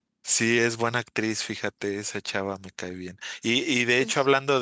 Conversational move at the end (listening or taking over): listening